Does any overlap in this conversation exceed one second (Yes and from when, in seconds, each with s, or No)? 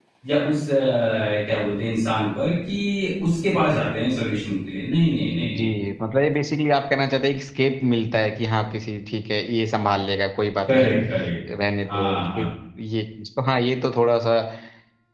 No